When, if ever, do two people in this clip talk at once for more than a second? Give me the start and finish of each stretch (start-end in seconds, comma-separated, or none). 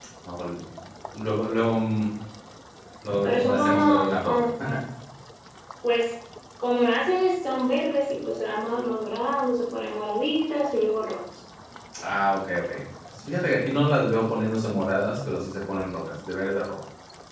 3.2-4.5